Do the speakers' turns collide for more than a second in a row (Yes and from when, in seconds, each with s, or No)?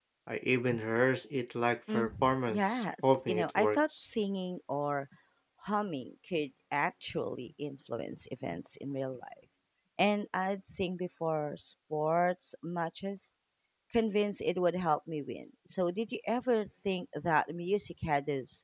Yes, from 1.9 s